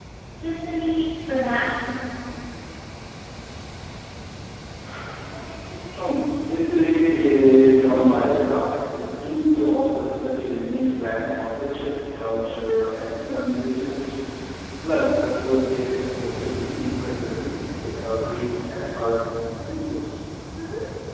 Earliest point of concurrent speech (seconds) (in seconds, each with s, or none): none